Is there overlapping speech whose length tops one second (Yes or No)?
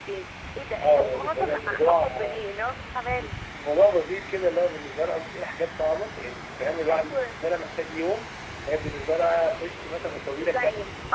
Yes